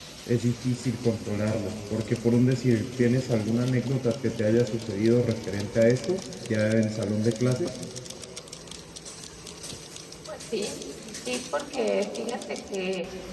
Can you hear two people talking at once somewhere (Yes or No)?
No